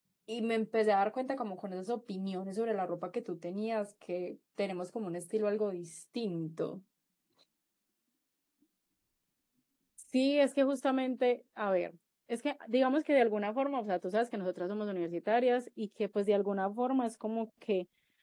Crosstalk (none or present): none